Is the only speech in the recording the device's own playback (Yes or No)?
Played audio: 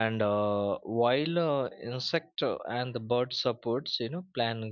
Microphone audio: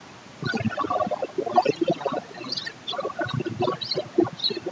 Yes